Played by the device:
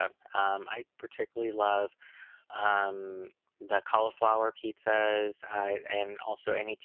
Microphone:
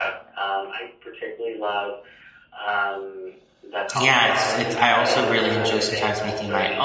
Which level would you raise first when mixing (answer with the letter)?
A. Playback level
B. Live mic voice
A